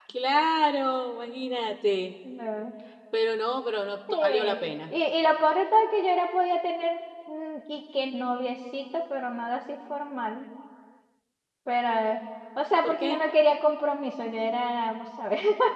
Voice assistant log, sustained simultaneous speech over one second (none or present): none